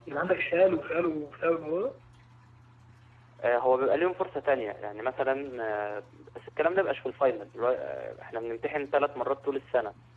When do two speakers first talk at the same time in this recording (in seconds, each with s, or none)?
none